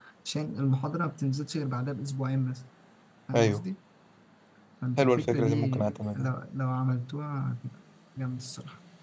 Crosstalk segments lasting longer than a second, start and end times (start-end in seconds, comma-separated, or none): 5.0-6.4